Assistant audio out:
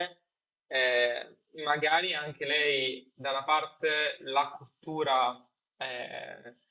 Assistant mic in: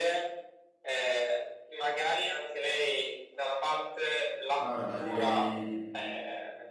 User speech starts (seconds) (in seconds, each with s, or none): 4.5 s